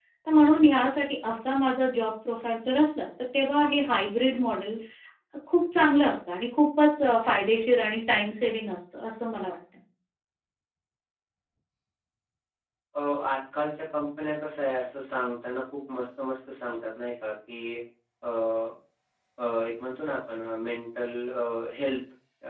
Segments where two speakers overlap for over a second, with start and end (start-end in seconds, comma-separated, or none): none